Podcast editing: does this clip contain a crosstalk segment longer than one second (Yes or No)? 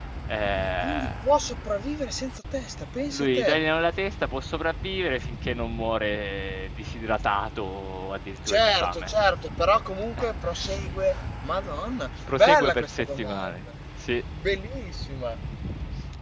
Yes